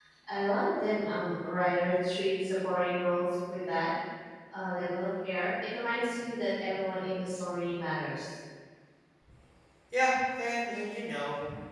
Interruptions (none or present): none